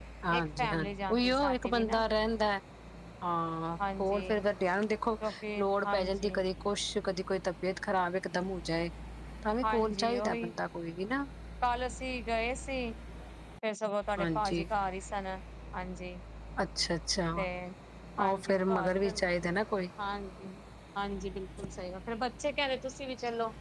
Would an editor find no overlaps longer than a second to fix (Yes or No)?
No